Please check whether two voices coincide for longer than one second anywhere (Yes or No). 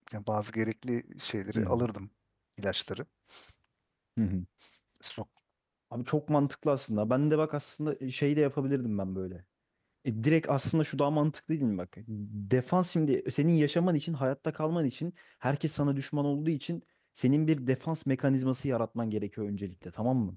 No